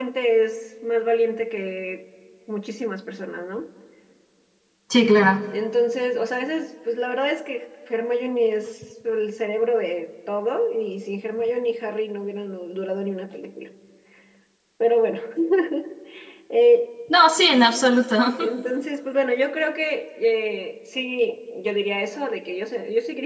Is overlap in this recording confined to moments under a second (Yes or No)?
Yes